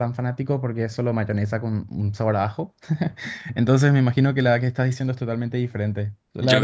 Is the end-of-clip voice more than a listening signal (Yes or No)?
Yes